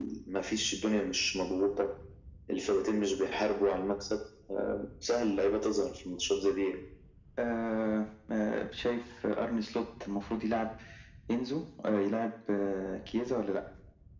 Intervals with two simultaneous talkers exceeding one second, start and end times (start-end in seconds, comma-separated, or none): none